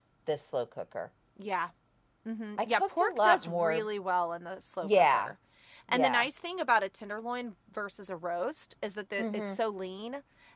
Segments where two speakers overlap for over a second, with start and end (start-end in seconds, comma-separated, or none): 2.6-3.9